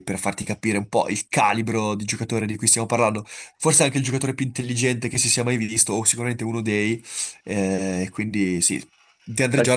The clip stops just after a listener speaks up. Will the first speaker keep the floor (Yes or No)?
Yes